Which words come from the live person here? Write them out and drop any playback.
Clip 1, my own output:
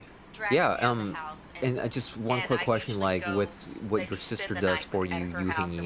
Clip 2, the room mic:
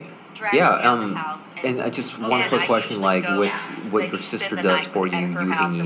overly, yeah,

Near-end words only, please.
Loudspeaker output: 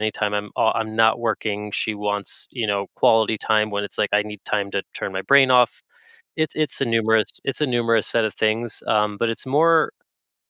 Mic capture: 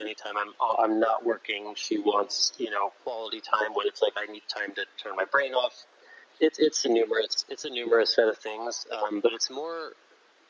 none

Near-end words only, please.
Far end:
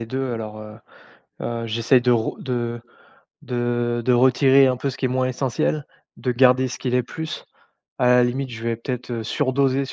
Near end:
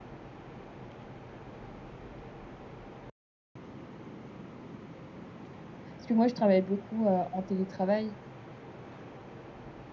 Parce que moi, je travaille beaucoup, heu, en télétravail,

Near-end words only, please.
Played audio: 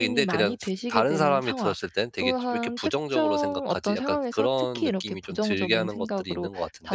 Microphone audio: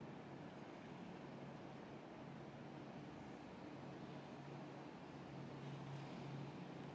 none

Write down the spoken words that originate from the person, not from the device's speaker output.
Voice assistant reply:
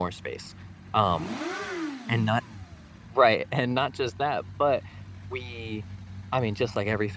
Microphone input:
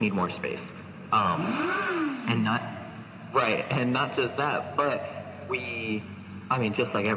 none

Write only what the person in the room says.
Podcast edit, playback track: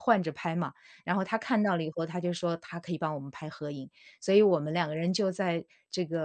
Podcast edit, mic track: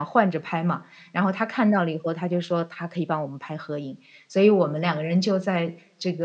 none

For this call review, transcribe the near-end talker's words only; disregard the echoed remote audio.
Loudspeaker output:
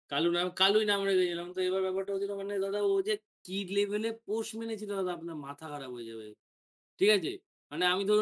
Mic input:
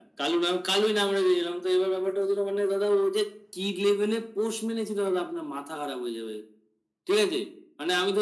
none

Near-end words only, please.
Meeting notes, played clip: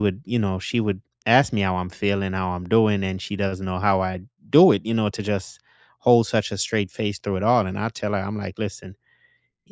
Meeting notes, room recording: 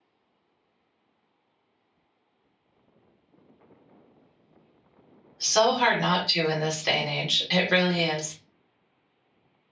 so hard not to in this day and age it really is

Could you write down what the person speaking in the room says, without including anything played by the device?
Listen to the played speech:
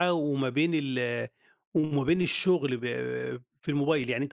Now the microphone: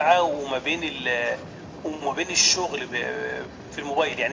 none

